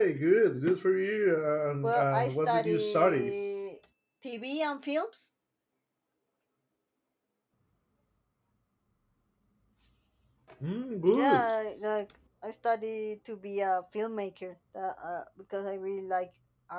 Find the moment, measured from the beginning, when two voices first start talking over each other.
1.8 s

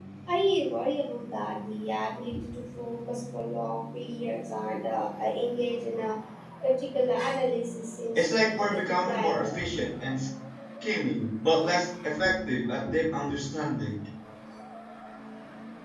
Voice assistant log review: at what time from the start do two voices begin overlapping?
8.2 s

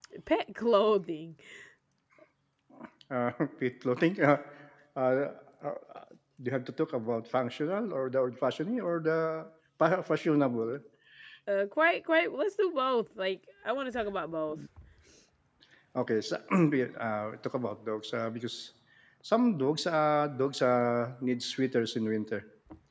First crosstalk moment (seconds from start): none

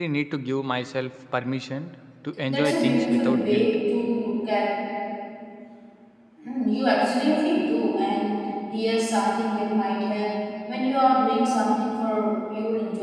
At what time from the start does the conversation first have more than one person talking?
2.5 s

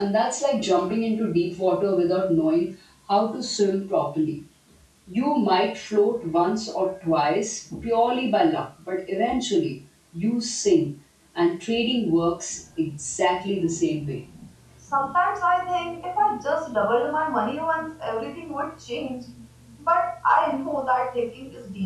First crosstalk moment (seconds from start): none

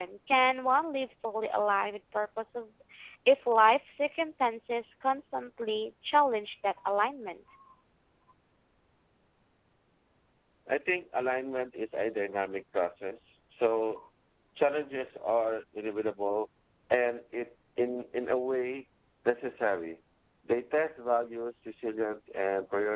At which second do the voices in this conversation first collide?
none

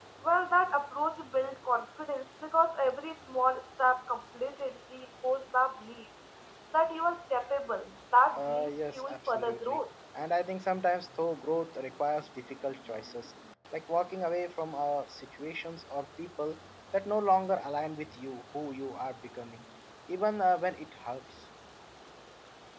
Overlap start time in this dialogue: 8.3 s

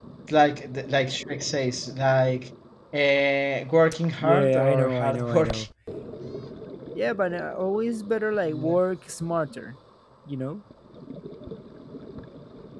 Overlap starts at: 4.2 s

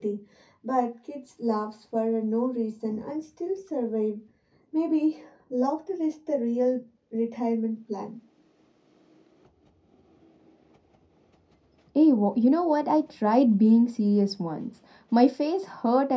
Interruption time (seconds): none

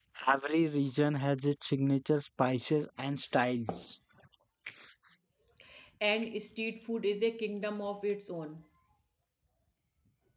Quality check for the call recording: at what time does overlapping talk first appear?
none

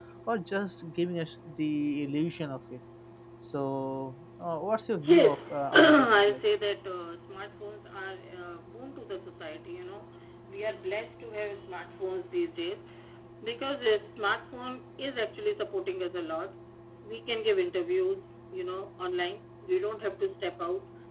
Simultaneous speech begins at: 5.0 s

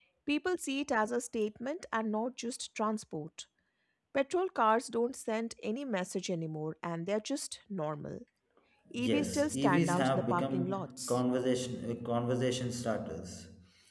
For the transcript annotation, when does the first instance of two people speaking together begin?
9.0 s

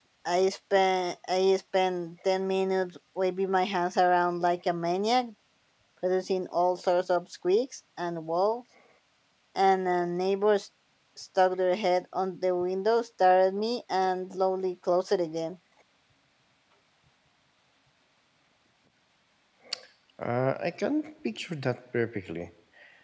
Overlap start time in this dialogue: none

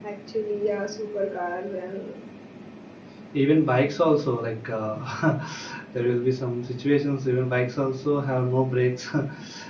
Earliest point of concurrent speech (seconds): none

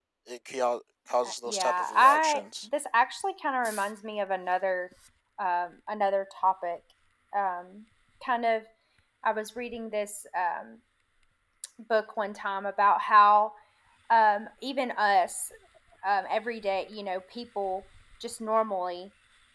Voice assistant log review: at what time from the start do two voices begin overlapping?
1.2 s

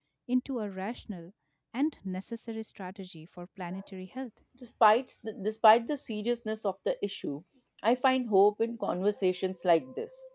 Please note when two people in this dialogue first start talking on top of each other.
none

